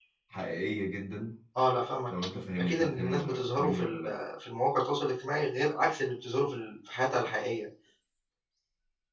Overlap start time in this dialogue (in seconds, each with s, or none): 2.6 s